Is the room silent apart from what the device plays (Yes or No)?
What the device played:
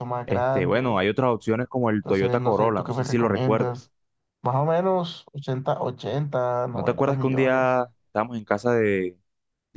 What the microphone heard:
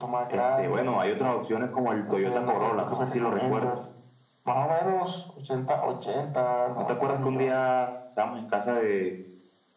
Yes